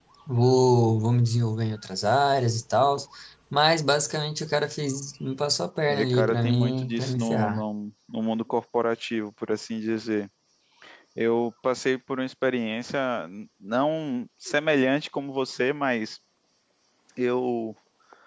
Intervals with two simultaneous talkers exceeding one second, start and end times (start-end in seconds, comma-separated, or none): 5.9-7.6